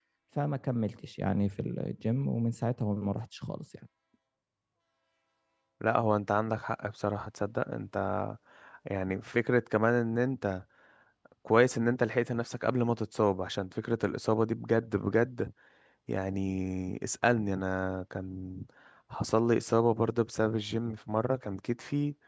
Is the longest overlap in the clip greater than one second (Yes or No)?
No